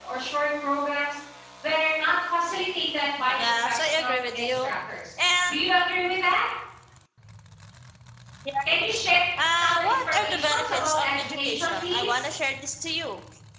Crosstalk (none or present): present